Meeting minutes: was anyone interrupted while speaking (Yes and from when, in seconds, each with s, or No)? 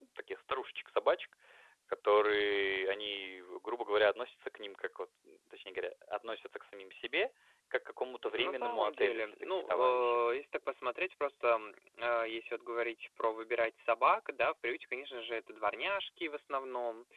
Yes, from 8.2 s